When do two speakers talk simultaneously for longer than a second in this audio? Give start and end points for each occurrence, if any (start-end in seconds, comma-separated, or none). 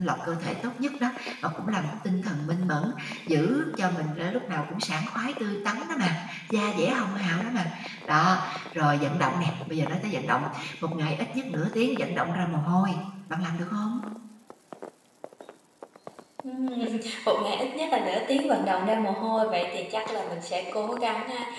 none